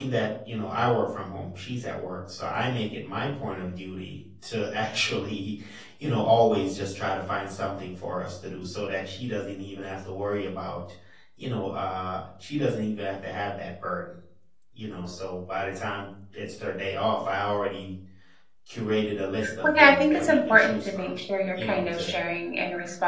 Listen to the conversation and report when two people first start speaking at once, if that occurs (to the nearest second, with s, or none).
19 s